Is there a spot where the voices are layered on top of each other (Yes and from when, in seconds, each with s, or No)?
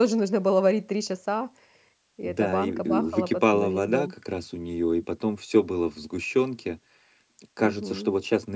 Yes, from 2.2 s